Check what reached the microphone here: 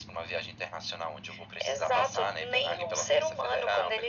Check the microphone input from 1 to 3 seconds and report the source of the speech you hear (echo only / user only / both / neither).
echo only